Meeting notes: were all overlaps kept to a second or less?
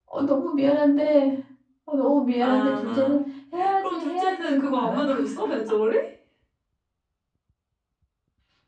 No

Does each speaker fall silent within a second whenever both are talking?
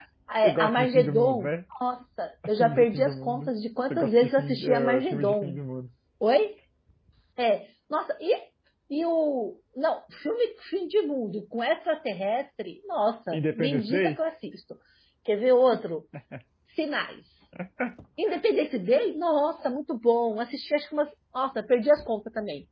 No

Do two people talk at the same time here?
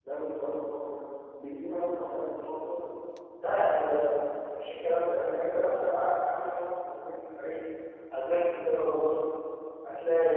No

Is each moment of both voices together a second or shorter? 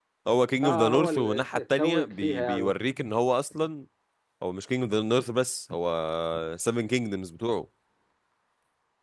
No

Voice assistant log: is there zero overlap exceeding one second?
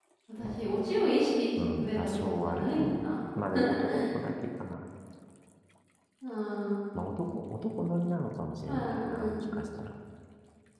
No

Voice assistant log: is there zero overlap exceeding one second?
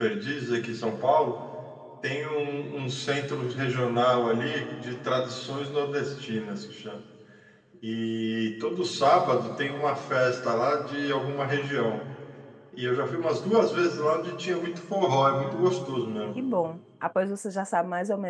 Yes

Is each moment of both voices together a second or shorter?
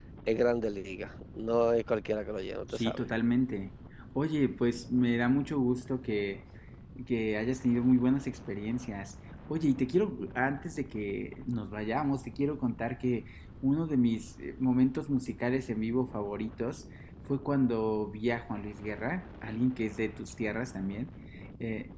Yes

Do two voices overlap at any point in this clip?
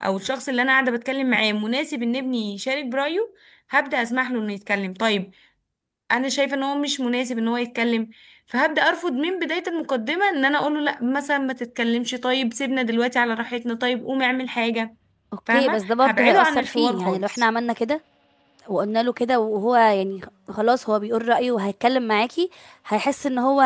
Yes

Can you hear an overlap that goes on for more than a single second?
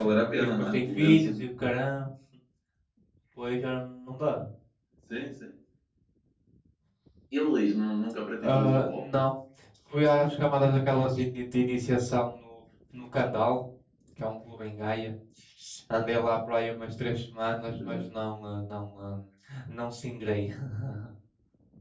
Yes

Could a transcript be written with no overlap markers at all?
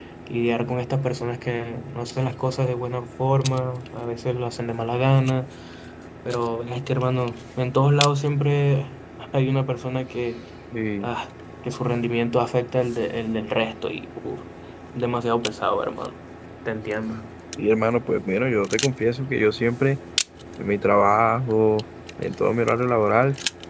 Yes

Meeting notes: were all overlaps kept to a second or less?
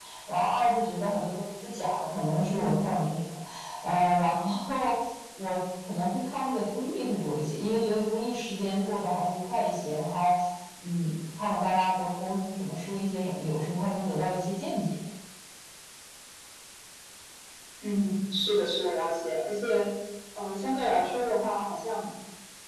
Yes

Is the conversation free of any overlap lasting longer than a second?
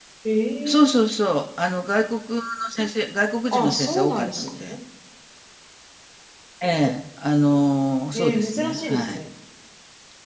No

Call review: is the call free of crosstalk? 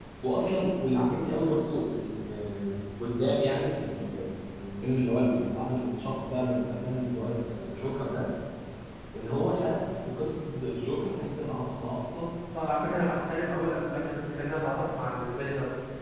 Yes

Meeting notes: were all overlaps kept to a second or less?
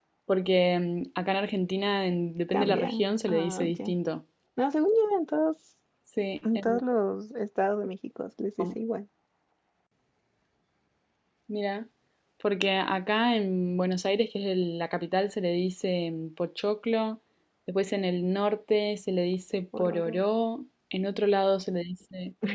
No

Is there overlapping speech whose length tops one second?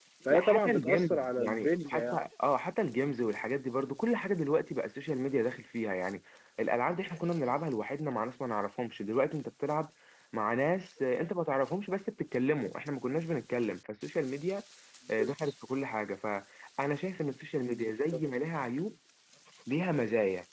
Yes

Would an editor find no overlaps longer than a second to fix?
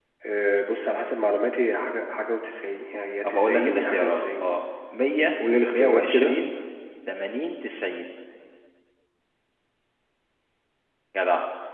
No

